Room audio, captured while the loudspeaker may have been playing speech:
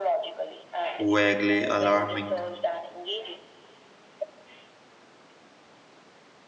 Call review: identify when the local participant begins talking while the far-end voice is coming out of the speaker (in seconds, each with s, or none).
1.0 s